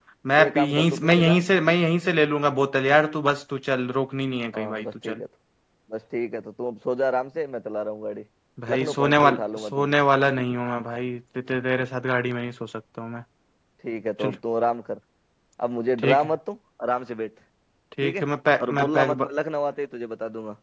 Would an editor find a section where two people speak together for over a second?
Yes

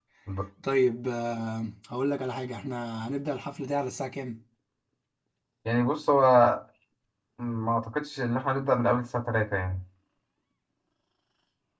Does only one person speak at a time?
Yes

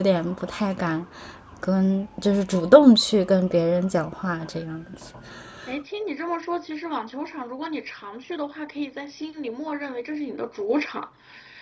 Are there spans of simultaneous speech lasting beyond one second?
No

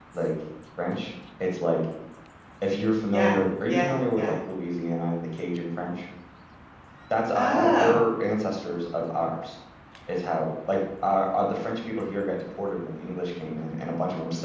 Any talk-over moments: Yes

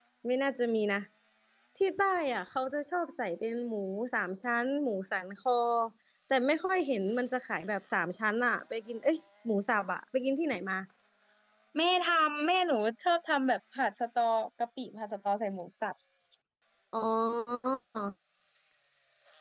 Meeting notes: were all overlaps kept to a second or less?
Yes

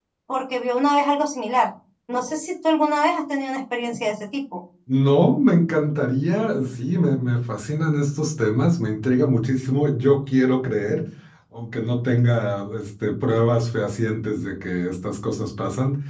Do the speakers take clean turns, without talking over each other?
Yes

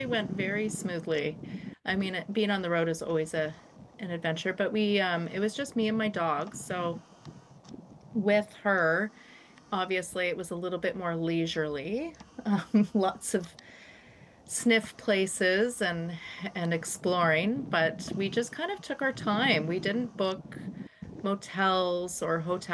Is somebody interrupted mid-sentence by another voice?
No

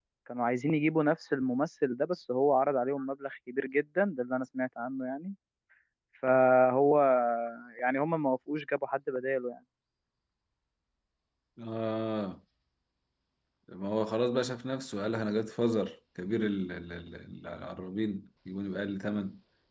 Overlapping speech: No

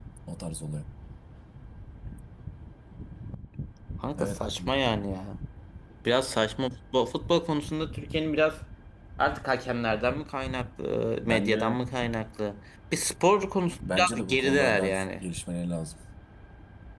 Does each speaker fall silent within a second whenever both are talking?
No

